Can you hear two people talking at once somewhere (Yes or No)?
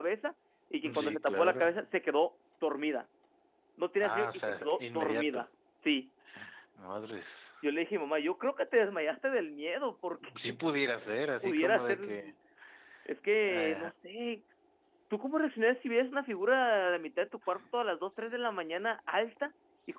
Yes